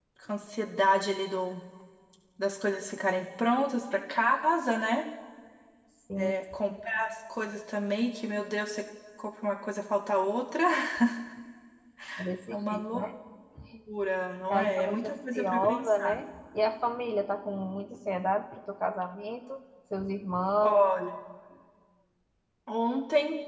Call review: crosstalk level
present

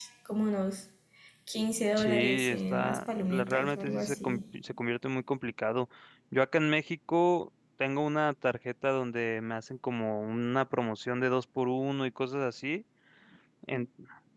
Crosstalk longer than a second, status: present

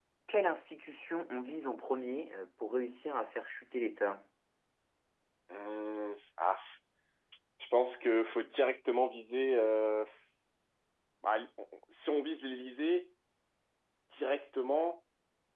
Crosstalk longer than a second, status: none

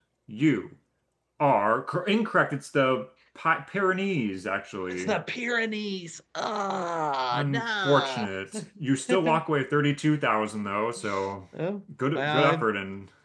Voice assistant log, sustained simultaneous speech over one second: present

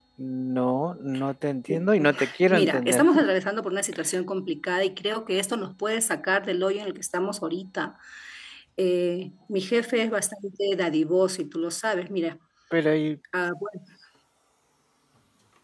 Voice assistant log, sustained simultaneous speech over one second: present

